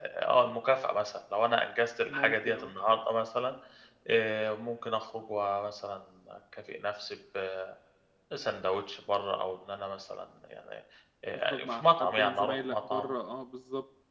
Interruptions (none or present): present